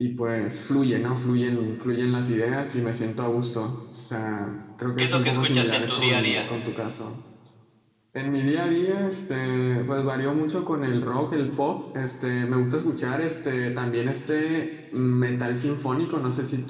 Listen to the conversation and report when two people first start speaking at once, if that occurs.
5.0 s

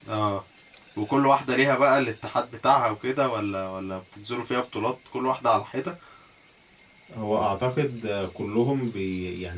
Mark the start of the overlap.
none

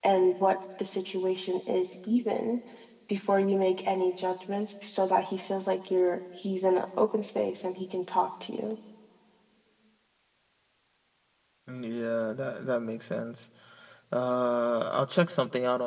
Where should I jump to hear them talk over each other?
none

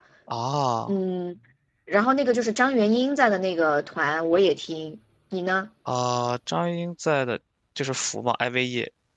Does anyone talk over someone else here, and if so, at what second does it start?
none

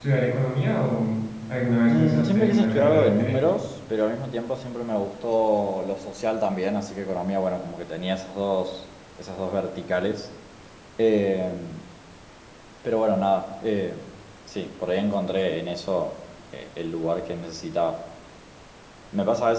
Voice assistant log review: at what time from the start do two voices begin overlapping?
1.9 s

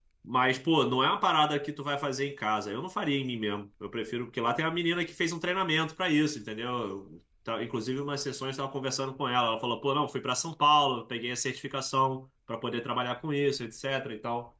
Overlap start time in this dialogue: none

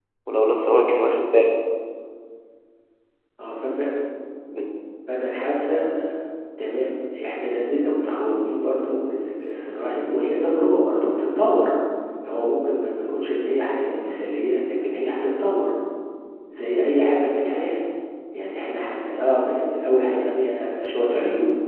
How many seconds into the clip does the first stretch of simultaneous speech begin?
none

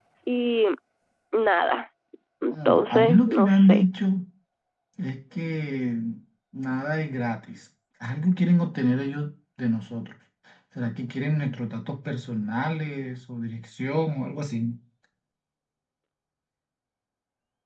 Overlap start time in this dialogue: 2.5 s

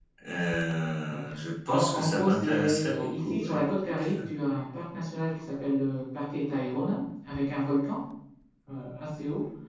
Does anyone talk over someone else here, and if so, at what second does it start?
1.7 s

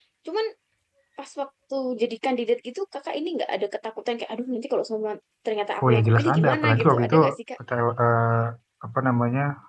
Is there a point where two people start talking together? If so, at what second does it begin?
5.8 s

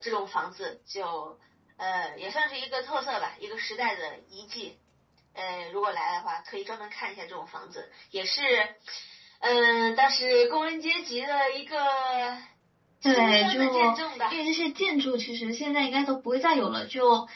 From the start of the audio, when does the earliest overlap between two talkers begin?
13.0 s

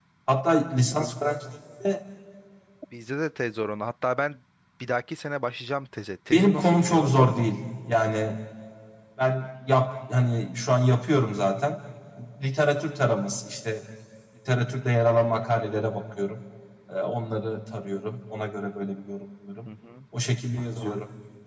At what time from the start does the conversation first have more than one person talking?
6.3 s

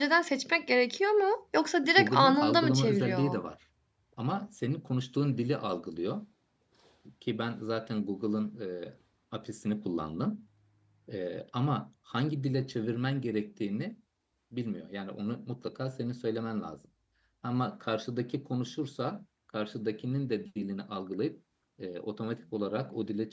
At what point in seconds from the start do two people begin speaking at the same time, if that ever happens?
2.0 s

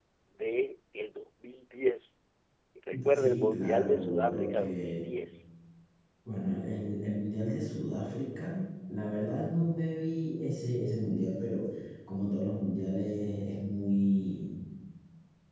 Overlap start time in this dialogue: 3.1 s

